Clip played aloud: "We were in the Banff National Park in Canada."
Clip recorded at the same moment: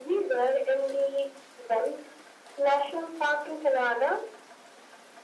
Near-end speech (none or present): none